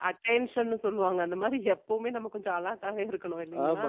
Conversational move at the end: taking over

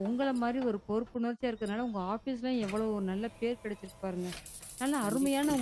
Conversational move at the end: listening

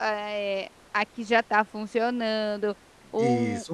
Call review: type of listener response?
listening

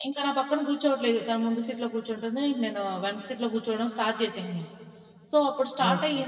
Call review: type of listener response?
listening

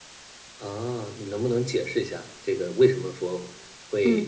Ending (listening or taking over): listening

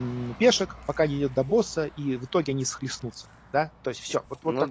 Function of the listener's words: listening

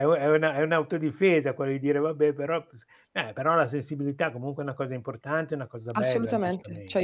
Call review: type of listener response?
taking over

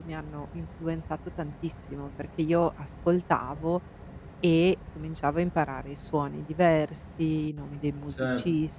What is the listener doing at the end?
taking over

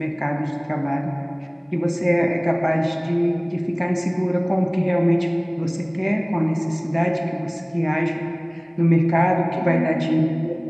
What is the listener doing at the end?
listening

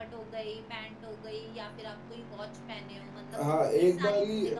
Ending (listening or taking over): taking over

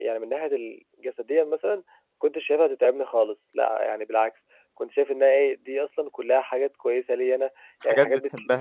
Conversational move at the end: listening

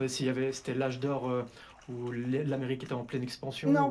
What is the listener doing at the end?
taking over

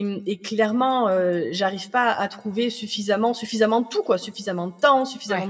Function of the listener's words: listening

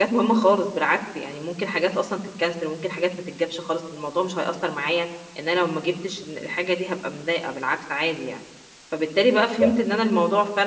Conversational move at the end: listening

